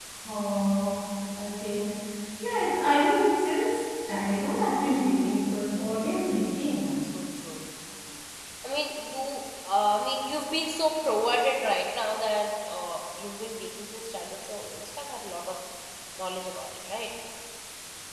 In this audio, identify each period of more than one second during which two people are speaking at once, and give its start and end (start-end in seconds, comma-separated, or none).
none